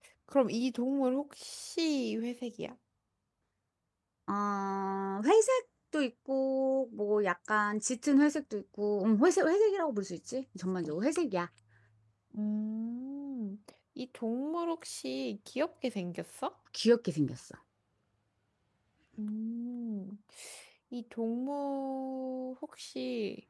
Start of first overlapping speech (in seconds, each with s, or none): none